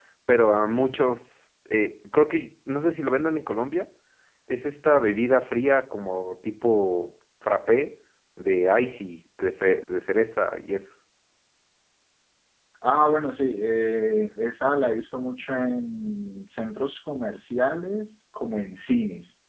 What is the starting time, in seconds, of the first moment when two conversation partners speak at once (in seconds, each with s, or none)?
none